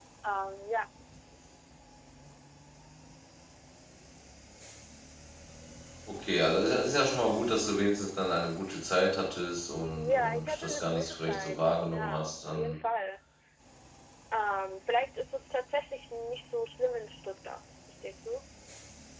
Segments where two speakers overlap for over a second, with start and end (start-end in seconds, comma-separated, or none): 10.0-12.8